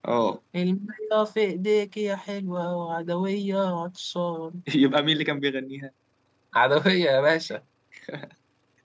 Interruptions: none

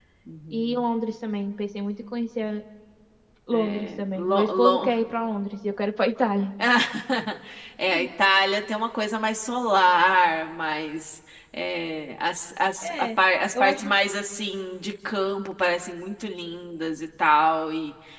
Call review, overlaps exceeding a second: present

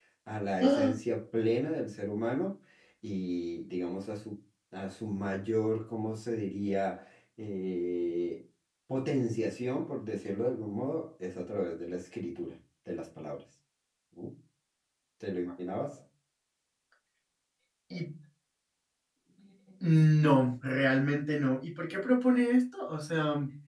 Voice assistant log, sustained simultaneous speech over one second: none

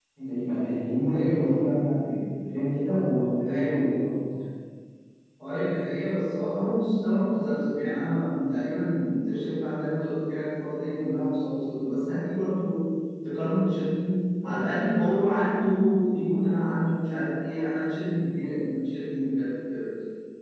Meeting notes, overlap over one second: none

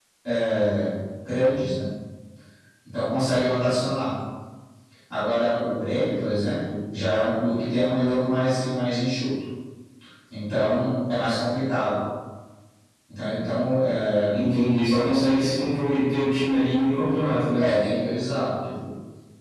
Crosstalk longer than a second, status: none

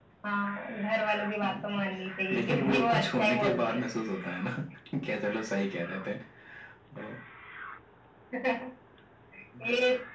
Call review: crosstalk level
present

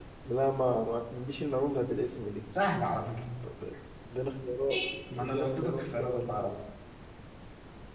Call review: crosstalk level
present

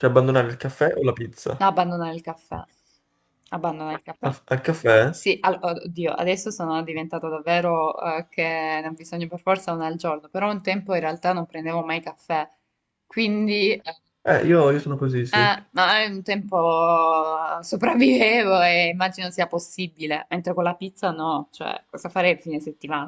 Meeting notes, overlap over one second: none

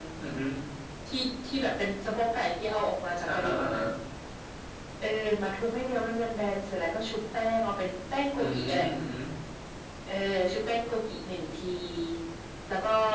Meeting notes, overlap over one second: none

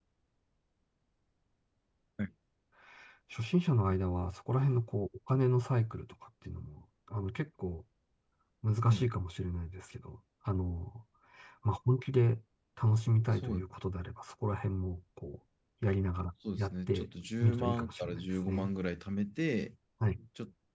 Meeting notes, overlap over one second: present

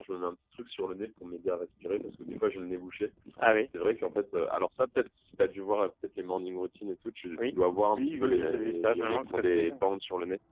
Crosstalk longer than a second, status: present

